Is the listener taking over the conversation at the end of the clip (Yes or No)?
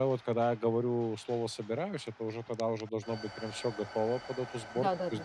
No